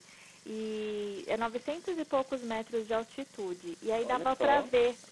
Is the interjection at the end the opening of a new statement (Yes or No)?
No